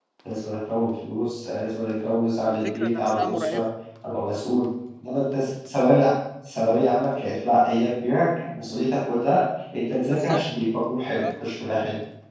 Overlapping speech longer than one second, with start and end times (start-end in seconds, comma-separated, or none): 2.5-3.7